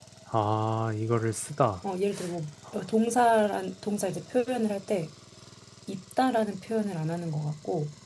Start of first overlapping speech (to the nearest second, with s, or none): none